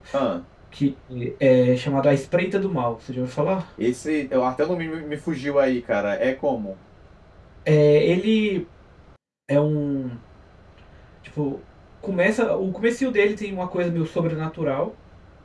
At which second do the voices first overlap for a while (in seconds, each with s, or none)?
none